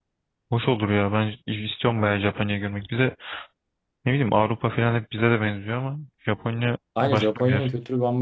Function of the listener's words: taking over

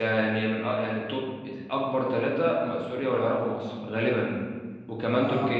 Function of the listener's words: listening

